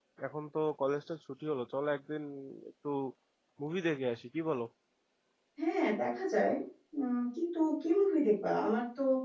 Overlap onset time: none

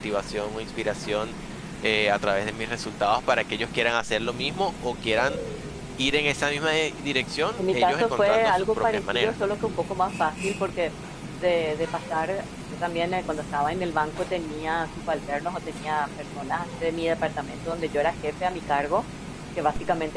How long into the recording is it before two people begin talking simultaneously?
7.6 s

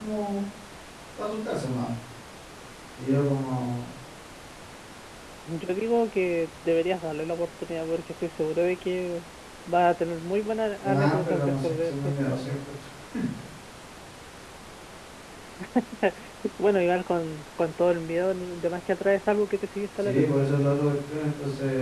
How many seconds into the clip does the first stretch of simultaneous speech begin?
10.8 s

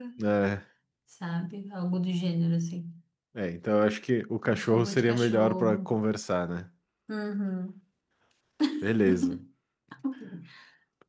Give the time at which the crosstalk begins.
4.5 s

